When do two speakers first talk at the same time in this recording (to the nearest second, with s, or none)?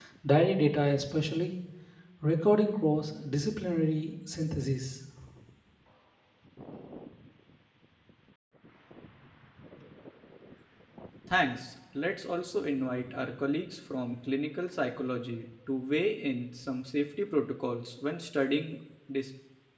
none